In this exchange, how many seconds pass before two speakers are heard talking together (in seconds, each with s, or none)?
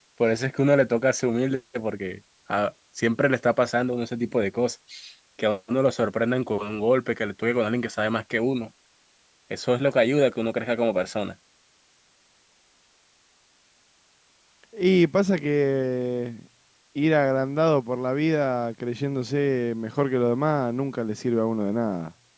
none